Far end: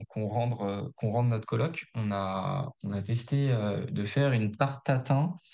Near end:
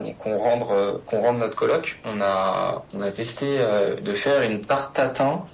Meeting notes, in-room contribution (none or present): none